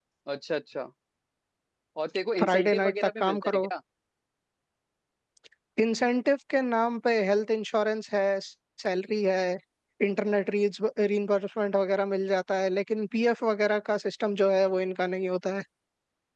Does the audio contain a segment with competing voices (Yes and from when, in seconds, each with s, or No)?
Yes, from 2.4 s